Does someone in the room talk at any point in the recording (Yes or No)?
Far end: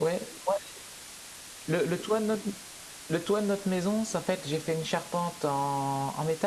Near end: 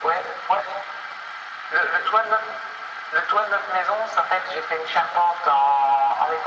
No